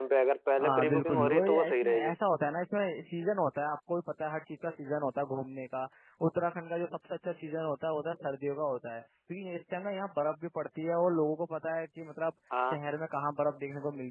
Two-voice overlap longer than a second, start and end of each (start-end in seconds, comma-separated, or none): 0.6-2.1